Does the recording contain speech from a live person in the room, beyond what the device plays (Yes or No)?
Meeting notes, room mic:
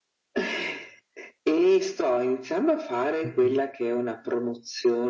Yes